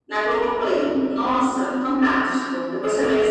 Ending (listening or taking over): listening